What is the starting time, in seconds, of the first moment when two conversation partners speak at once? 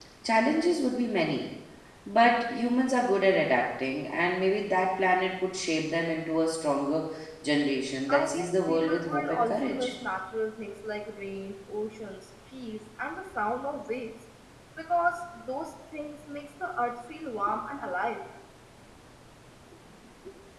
8.1 s

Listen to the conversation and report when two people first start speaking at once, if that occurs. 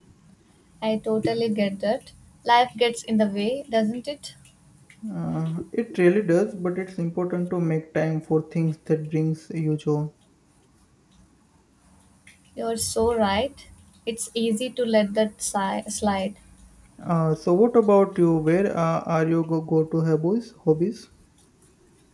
none

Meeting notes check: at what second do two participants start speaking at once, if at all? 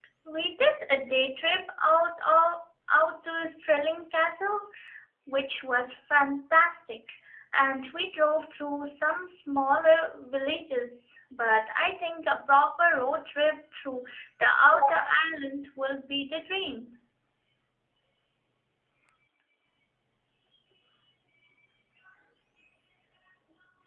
none

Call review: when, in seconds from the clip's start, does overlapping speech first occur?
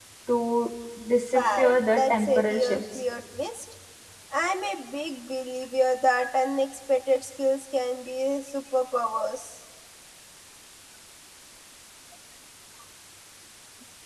1.3 s

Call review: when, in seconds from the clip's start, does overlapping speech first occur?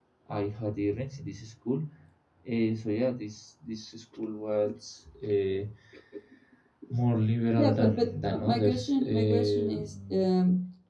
7.6 s

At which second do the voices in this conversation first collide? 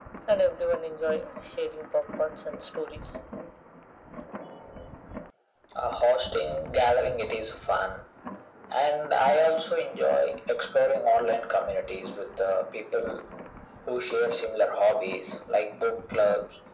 none

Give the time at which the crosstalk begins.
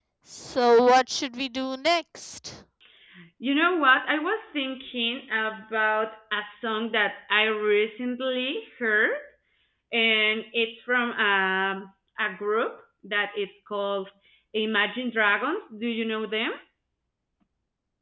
none

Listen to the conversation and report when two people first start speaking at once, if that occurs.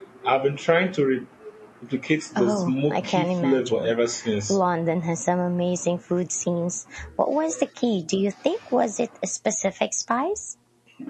2.4 s

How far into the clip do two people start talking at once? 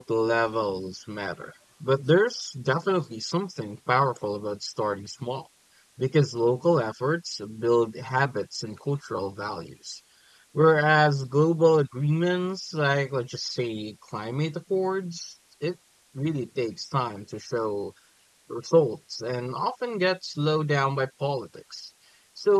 none

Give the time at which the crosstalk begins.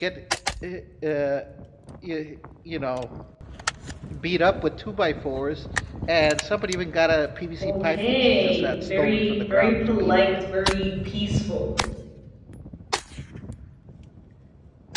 7.6 s

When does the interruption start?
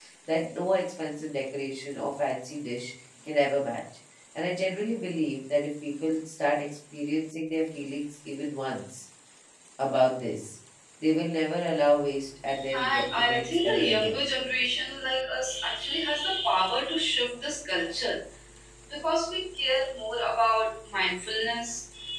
12.7 s

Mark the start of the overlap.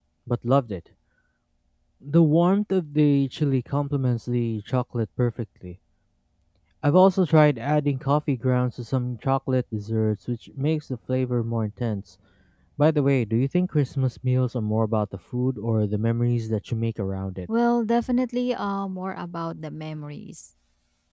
none

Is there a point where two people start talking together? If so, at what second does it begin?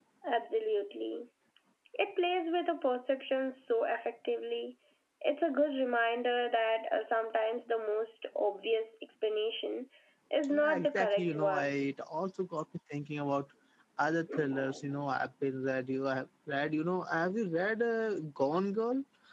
10.5 s

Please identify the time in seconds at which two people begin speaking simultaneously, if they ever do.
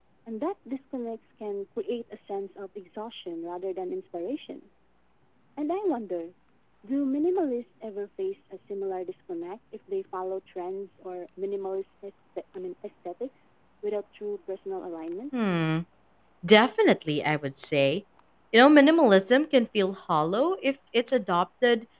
none

